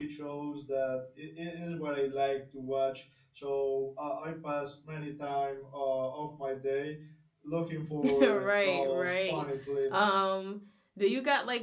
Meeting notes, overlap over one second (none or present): present